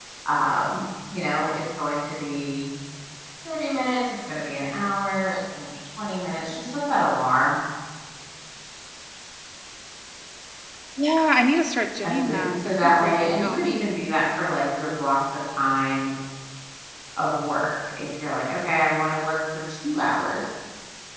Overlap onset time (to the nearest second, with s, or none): 12 s